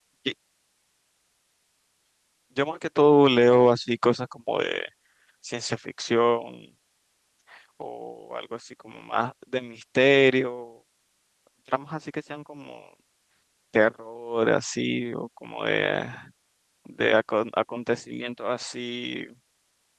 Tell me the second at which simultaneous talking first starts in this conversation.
none

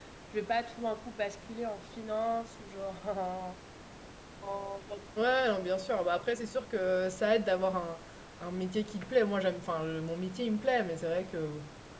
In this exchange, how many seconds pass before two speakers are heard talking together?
none

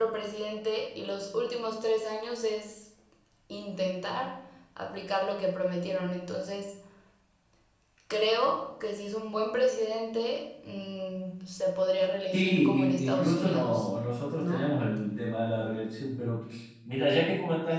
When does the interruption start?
12.3 s

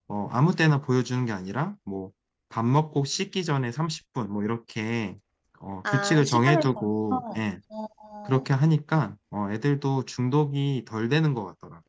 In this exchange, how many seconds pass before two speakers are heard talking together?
5.8 s

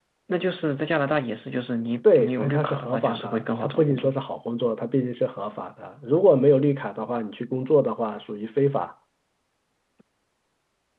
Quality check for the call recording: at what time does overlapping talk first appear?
2.0 s

